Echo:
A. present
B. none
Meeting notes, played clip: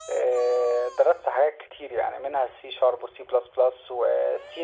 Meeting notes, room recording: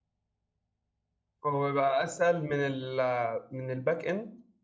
B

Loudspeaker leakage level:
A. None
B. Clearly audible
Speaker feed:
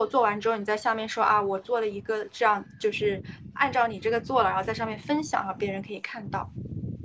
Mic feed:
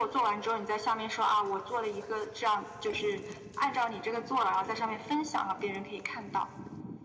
B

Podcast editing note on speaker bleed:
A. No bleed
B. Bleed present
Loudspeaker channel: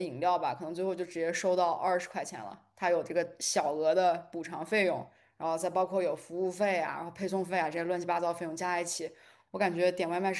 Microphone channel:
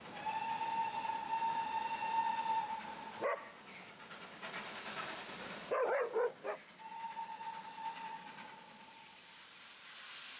A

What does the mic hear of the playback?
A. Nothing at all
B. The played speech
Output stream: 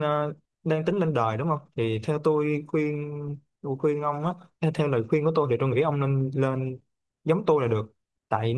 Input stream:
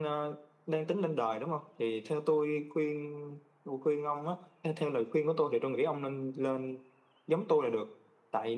B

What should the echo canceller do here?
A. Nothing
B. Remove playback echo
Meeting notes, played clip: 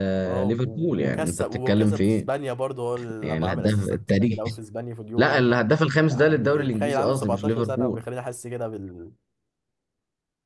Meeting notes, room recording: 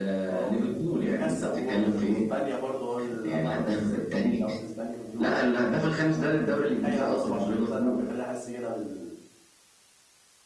B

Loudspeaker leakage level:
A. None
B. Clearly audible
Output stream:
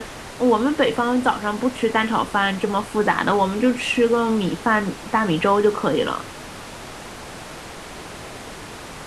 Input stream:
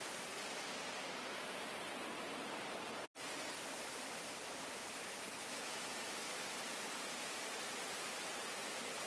A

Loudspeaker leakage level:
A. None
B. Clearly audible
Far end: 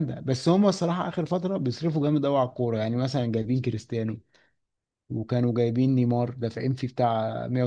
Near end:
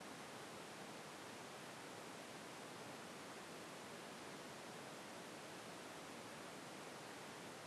A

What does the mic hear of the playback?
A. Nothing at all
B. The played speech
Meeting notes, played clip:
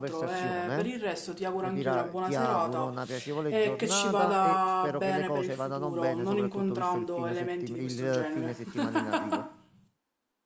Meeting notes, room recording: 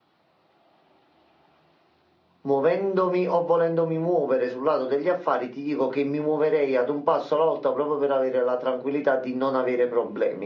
A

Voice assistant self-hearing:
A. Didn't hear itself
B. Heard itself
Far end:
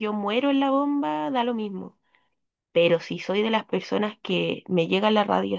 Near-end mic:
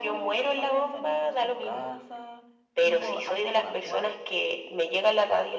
B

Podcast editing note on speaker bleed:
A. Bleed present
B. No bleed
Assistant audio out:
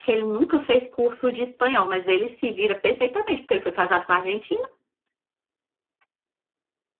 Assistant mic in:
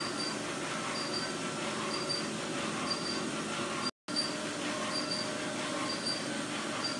B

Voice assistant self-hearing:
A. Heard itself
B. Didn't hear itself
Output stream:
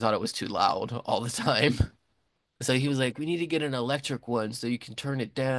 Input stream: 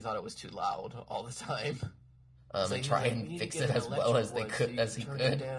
A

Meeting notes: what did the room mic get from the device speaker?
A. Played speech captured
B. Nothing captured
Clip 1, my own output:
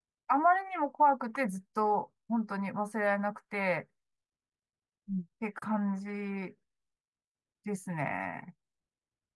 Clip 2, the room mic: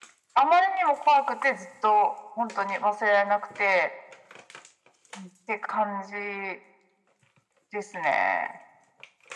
A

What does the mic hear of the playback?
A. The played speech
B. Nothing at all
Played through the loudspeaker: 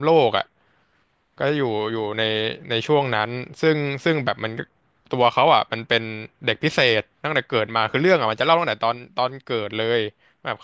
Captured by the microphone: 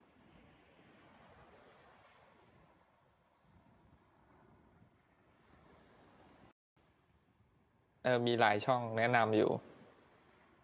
B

